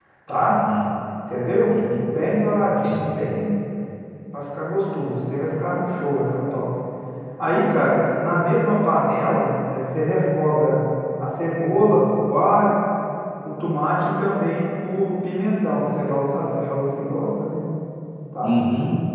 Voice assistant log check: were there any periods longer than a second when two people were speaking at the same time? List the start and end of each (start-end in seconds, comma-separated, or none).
none